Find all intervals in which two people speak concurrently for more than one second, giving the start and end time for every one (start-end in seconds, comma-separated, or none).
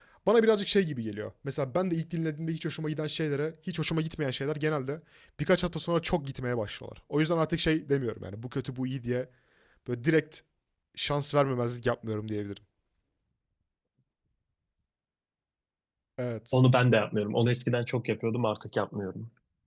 none